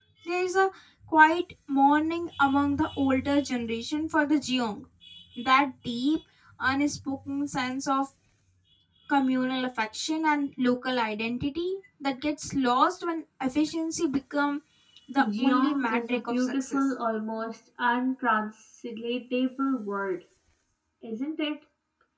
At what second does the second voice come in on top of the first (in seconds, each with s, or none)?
15.4 s